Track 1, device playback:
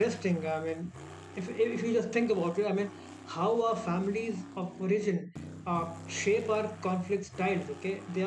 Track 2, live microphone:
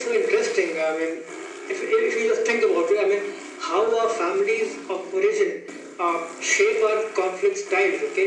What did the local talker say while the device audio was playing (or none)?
none